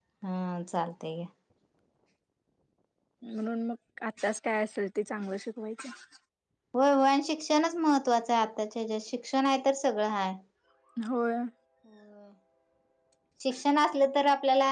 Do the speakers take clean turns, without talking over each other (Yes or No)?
Yes